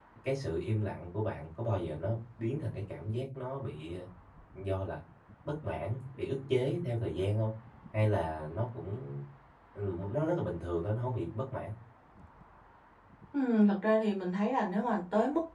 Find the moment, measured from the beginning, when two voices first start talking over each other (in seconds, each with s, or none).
none